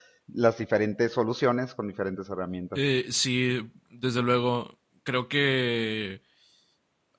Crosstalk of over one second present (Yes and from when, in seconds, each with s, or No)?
No